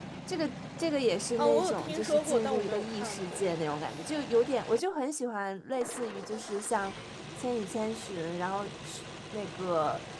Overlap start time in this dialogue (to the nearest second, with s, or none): 1 s